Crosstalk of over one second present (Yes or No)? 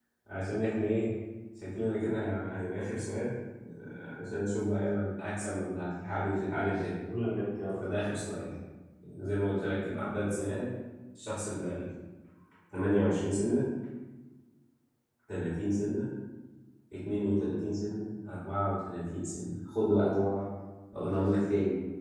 No